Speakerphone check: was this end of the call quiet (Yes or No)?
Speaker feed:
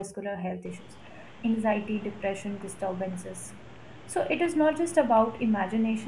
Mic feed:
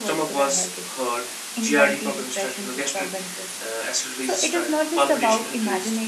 No